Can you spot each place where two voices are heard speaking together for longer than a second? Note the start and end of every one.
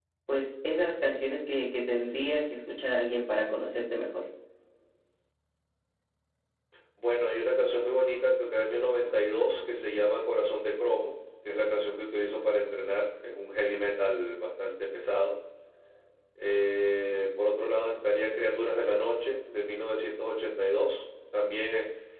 none

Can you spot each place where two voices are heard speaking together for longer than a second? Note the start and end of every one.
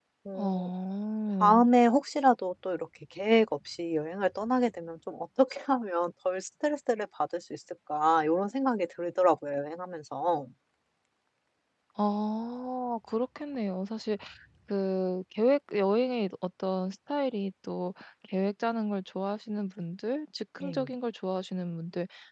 none

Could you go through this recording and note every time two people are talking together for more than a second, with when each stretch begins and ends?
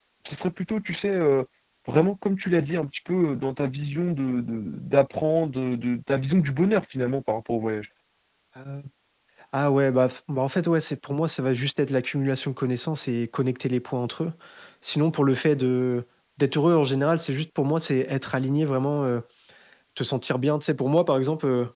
none

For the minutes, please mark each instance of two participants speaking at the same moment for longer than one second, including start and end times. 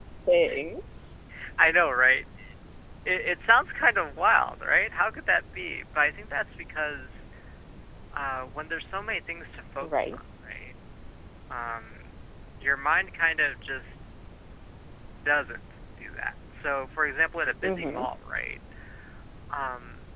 none

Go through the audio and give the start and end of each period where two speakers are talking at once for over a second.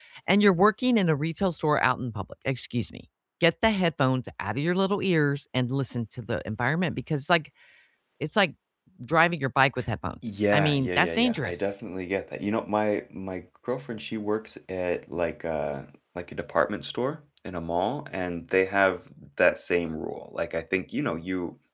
10.2-11.7

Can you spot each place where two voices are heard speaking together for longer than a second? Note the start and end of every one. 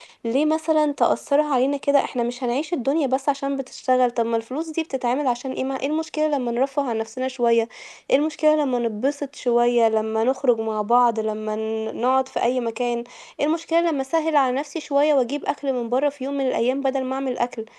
none

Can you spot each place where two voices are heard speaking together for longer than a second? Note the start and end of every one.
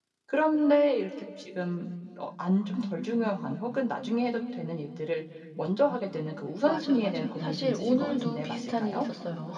6.6-9.1

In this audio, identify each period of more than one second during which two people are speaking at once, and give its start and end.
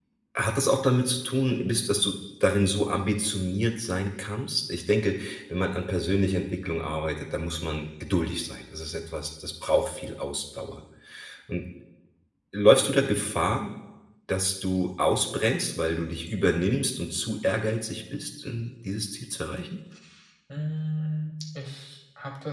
none

